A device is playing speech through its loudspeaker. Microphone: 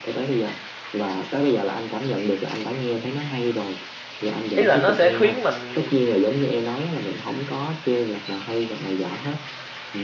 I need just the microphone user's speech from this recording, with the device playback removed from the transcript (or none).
ý là nó sẽ khiến mình